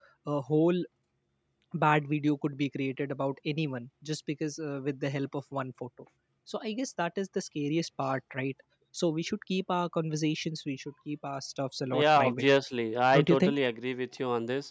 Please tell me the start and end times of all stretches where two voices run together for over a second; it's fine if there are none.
none

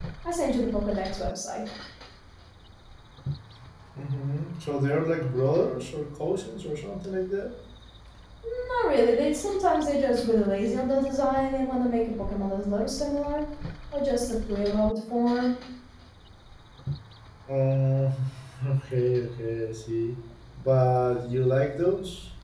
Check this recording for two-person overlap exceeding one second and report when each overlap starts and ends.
none

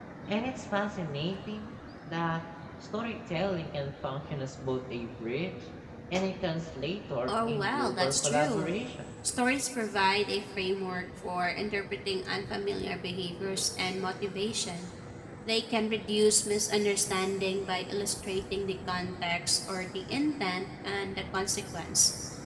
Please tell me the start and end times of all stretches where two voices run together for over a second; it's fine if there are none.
7.3-8.7

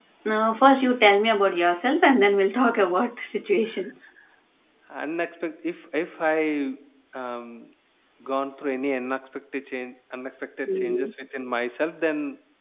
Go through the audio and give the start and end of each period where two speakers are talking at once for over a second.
none

